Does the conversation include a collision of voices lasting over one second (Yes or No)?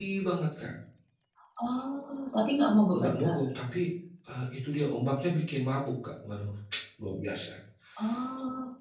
No